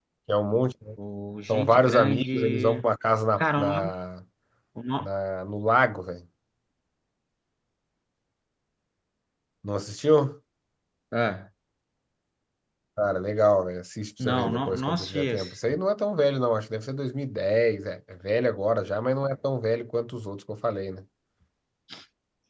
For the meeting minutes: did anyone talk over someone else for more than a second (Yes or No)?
Yes